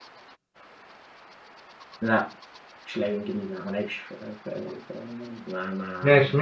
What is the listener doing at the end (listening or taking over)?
taking over